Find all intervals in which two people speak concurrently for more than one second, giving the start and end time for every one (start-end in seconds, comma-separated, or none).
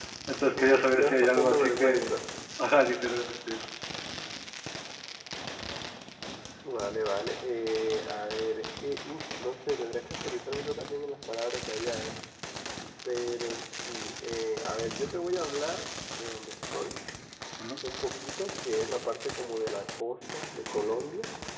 0.5-2.1